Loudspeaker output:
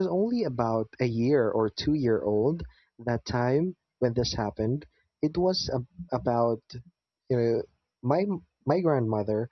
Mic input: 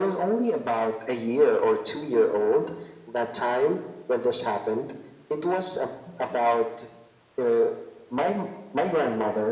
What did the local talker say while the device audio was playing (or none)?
none